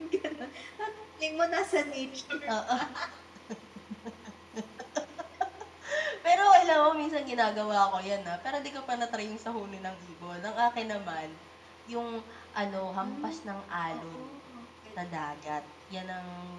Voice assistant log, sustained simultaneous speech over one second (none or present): none